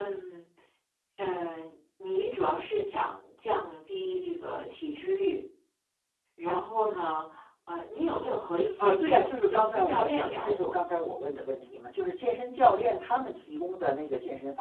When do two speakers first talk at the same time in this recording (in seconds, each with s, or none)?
8.6 s